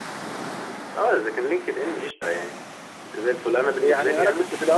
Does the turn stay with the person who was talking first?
No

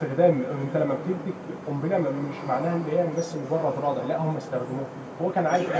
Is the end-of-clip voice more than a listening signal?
Yes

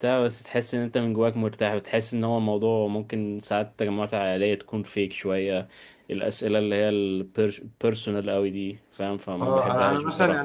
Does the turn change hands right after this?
Yes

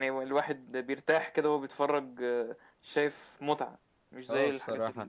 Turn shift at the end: Yes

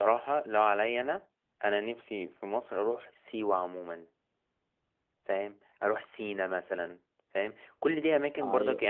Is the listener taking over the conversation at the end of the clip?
No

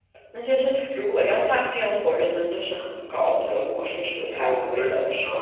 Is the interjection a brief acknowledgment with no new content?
No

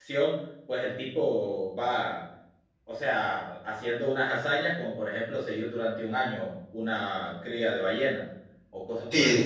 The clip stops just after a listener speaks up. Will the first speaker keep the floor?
No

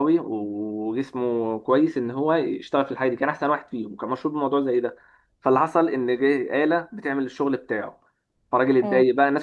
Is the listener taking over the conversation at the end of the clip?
No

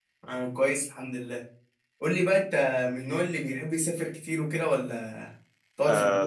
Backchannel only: No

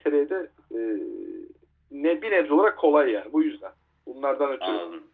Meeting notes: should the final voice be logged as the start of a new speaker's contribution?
Yes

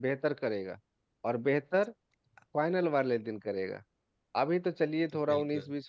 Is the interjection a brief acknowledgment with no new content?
Yes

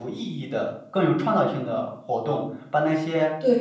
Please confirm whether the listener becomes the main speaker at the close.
No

